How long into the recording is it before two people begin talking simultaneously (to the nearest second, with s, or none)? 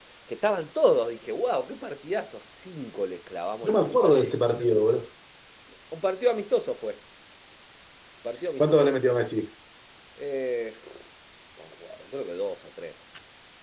4 s